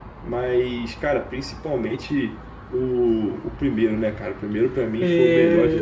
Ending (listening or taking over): taking over